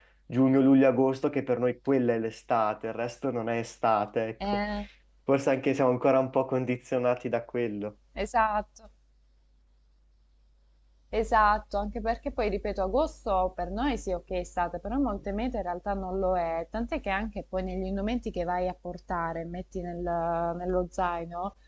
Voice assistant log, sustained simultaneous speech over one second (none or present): none